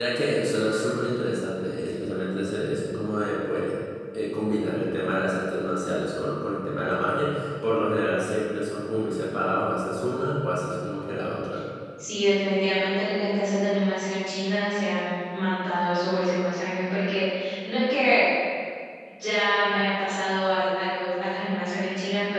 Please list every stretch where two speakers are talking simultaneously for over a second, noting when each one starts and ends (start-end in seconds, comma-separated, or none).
none